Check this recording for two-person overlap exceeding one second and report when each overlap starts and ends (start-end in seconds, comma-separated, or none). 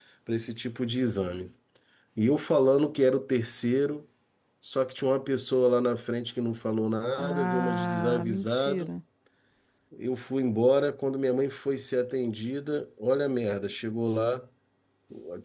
7.2-8.9